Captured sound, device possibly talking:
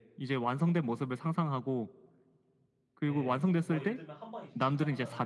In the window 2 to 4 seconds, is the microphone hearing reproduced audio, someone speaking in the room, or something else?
both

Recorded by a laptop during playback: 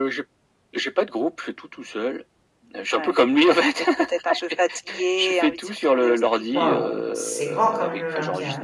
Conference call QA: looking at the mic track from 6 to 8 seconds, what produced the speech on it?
both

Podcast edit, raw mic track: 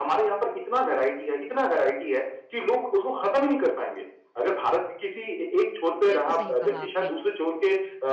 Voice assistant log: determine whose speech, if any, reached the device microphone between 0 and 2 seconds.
echo only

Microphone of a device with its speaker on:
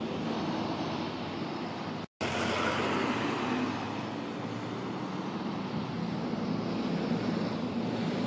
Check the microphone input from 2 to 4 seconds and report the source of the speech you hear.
neither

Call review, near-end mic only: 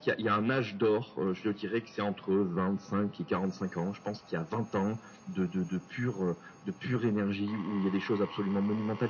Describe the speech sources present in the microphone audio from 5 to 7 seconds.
echo only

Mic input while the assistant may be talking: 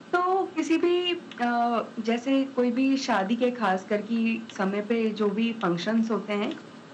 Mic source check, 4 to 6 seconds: echo only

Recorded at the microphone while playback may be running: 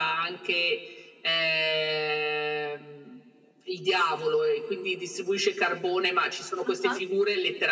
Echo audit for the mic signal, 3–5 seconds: echo only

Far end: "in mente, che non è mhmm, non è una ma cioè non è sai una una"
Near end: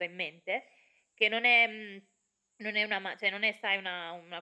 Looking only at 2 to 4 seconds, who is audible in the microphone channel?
echo only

